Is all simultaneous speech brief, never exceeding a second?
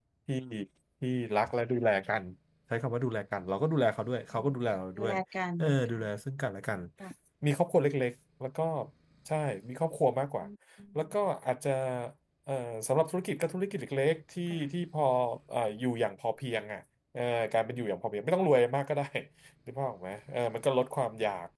Yes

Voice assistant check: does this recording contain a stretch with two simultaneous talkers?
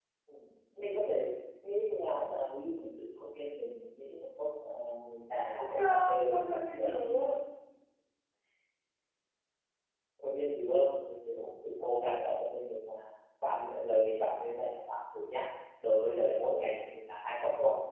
Yes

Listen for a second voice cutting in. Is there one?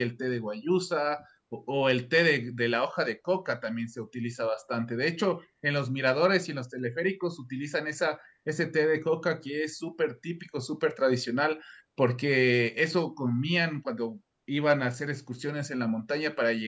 No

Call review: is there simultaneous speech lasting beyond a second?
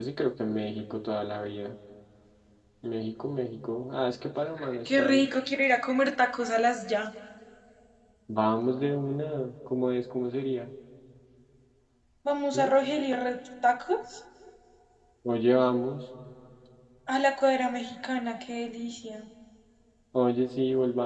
No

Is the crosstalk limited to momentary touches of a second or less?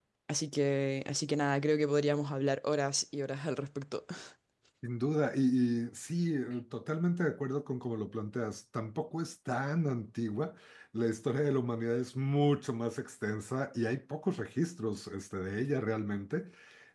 Yes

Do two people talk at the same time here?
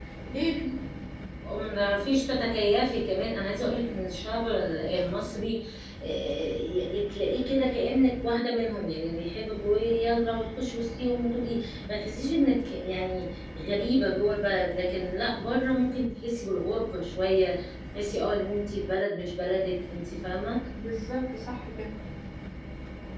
No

